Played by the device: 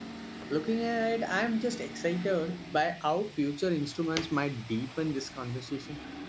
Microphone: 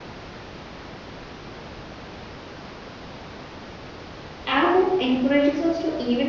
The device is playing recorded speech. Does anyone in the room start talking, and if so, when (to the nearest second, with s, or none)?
4 s